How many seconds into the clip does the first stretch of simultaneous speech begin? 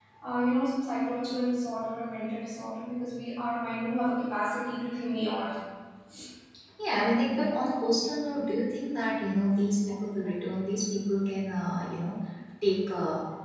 none

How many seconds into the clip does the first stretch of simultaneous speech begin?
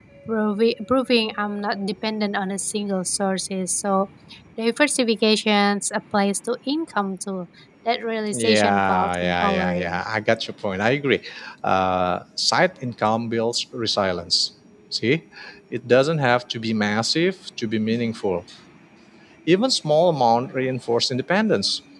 8.3 s

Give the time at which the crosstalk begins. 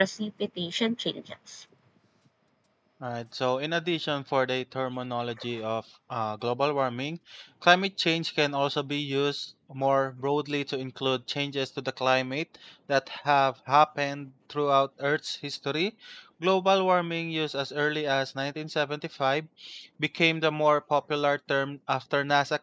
none

